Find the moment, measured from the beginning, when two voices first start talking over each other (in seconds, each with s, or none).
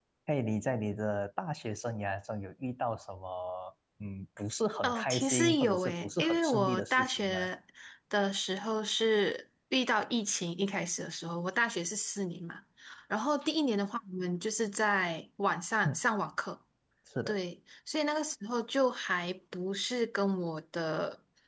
4.8 s